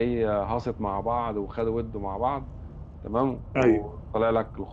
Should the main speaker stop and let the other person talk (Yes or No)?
No